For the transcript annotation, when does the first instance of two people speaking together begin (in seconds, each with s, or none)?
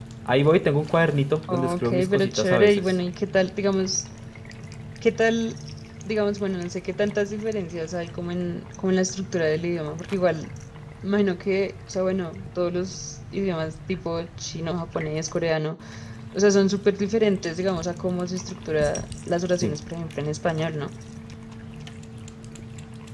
1.5 s